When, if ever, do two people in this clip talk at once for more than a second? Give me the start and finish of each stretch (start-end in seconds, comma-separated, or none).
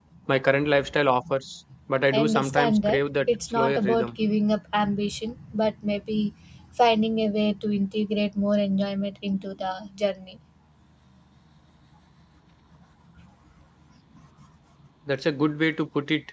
2.1-4.1